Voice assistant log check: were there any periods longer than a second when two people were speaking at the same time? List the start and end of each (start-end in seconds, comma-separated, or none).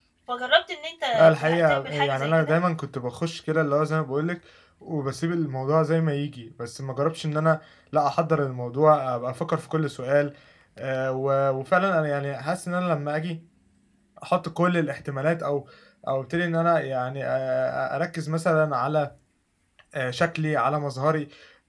1.1-2.5